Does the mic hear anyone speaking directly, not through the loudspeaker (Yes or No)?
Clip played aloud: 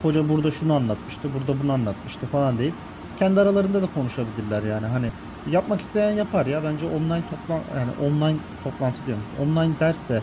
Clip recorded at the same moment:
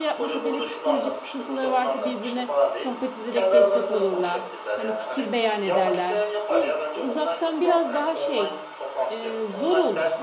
Yes